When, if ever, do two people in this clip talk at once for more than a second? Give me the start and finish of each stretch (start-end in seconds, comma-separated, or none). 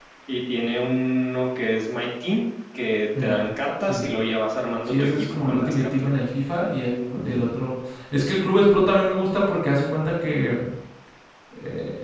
4.9-6.1